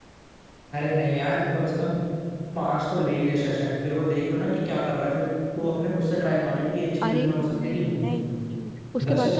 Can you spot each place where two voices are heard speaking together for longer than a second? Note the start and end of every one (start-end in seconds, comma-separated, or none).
7.0-8.4